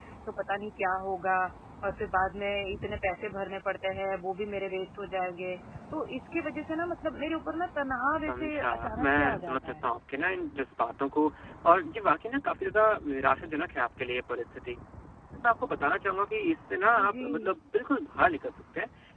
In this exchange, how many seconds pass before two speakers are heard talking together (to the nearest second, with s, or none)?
8 s